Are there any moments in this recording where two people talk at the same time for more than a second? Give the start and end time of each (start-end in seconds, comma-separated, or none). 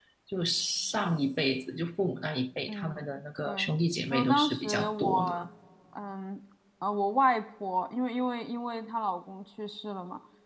4.1-5.3